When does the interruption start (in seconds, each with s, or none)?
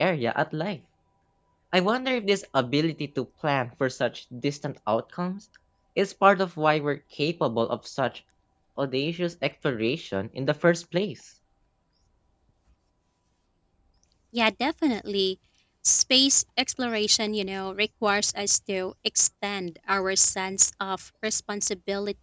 none